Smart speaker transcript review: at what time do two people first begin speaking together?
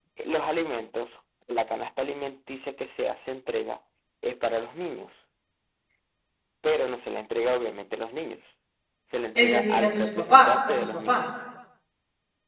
9.4 s

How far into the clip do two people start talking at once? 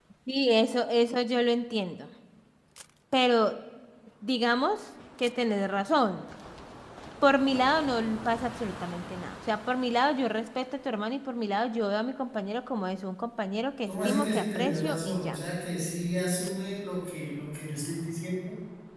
13.9 s

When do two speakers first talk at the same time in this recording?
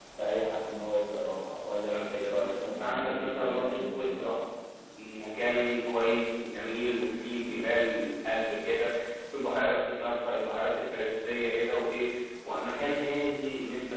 1.9 s

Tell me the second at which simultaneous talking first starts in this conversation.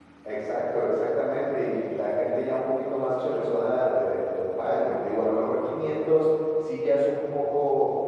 none

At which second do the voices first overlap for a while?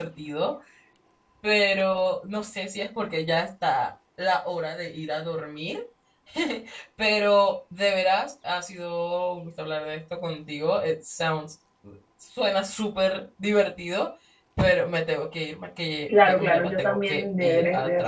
16.1 s

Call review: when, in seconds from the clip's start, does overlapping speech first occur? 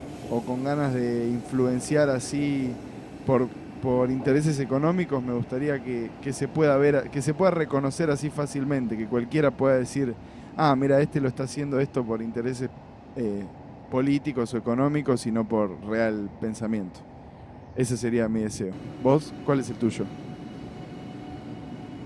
none

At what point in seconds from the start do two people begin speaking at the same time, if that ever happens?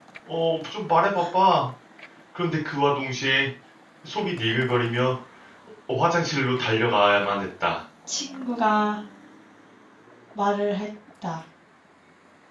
none

